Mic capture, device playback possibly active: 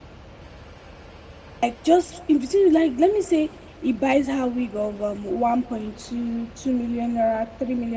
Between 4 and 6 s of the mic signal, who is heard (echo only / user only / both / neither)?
user only